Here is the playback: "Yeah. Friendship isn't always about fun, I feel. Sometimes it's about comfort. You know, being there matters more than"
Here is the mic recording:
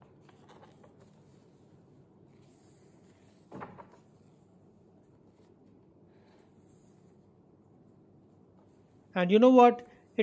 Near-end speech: present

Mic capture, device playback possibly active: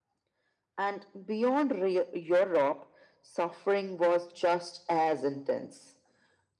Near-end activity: none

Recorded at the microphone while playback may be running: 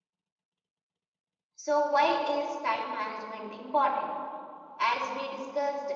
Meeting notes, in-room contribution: present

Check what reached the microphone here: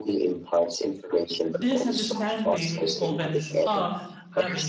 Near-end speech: present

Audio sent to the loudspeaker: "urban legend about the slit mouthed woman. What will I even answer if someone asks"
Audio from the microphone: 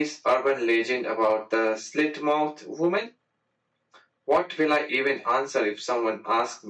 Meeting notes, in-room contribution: none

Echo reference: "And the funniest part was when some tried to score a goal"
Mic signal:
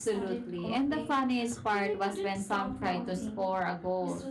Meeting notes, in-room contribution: present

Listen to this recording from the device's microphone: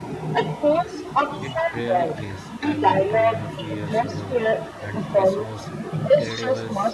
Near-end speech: present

